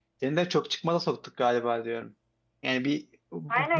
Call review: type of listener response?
taking over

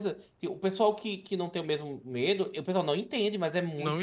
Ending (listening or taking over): taking over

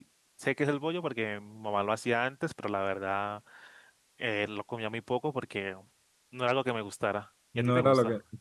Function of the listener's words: taking over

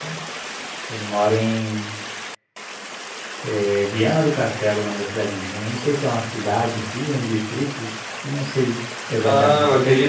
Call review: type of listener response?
taking over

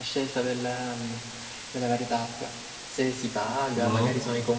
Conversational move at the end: listening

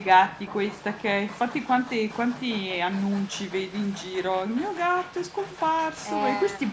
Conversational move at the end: listening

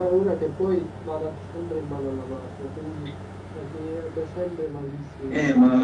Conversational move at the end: taking over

